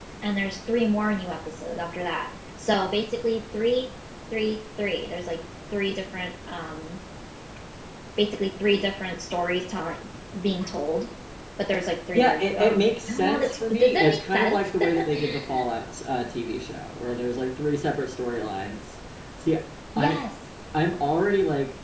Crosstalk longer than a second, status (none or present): present